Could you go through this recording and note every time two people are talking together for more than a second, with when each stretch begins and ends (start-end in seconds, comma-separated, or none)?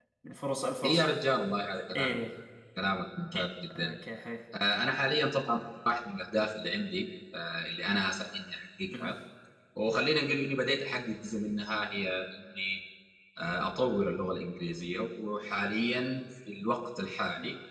none